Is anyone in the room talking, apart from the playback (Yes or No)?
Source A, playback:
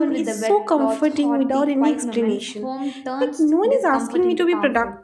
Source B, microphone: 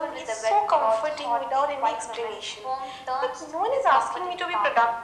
No